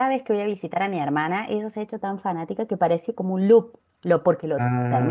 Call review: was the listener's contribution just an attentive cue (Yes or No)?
Yes